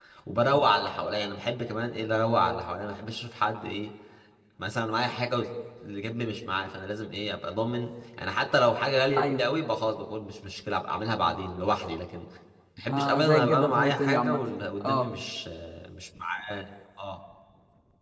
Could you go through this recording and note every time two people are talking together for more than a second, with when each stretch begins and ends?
12.9-14.4

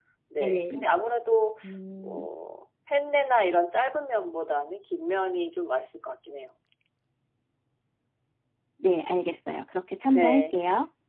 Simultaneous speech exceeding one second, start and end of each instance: none

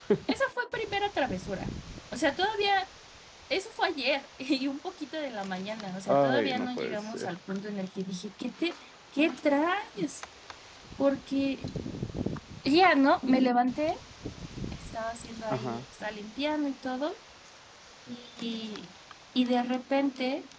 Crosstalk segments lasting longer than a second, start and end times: 6.1-7.3

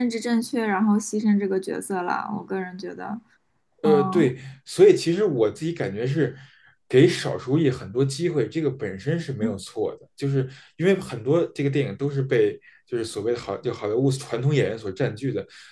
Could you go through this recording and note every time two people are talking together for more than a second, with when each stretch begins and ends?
none

